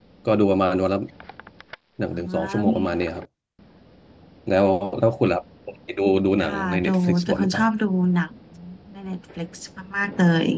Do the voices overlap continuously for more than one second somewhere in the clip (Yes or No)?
Yes